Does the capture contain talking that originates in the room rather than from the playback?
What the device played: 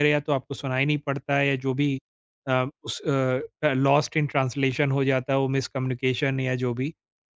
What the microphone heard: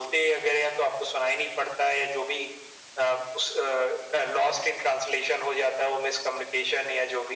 No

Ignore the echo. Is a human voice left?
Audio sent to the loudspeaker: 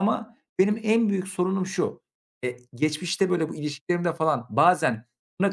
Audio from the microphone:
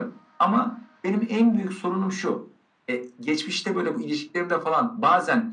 No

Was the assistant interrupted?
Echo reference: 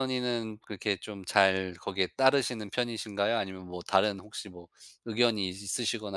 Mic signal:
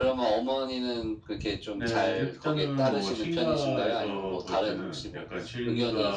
Yes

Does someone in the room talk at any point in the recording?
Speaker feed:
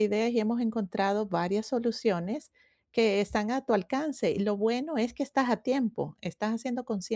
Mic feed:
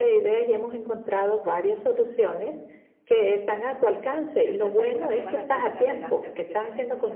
Yes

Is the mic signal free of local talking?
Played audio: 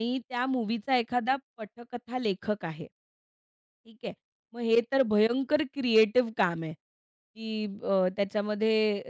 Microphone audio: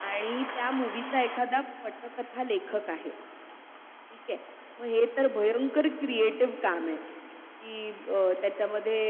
Yes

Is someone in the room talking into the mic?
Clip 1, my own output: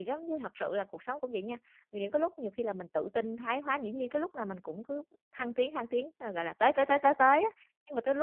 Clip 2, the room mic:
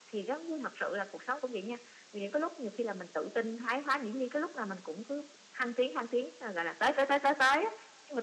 No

